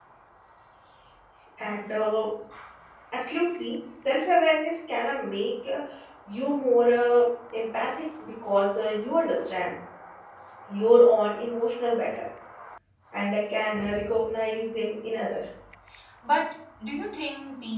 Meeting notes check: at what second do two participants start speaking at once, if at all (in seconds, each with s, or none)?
none